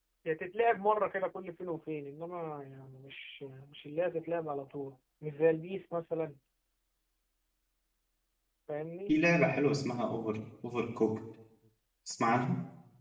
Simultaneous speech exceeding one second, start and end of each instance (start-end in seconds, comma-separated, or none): none